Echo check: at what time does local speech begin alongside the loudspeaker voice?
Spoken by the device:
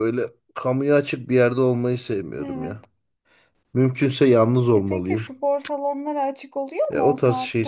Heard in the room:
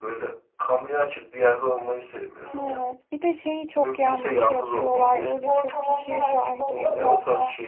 3 s

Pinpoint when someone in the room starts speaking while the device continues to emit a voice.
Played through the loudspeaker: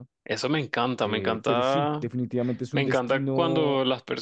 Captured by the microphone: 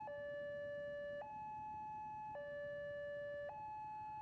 none

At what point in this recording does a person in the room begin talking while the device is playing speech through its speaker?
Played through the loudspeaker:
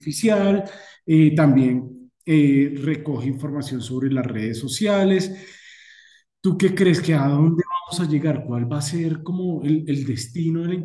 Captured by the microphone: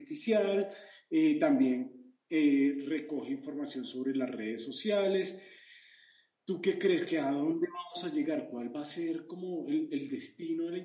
none

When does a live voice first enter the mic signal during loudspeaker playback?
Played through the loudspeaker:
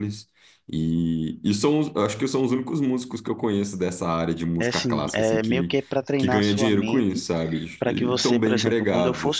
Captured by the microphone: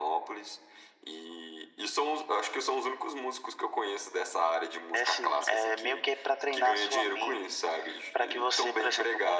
none

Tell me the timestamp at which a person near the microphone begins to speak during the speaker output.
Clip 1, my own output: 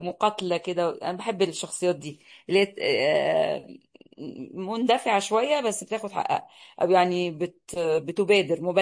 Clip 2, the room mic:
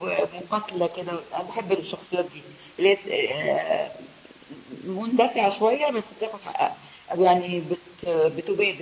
none

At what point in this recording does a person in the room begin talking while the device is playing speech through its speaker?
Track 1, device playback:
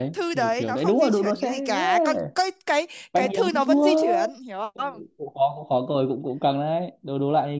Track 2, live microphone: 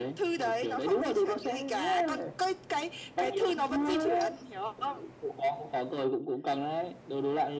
none

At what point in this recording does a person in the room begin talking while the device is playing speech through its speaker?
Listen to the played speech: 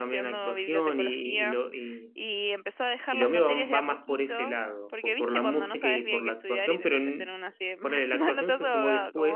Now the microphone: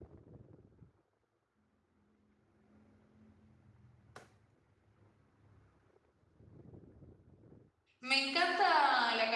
8 s

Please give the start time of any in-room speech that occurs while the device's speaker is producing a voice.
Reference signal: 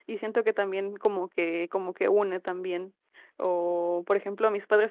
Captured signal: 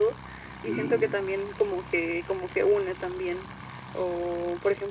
1 s

